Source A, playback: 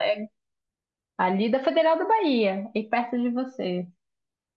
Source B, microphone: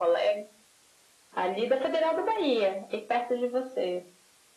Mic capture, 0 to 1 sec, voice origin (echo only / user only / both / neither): echo only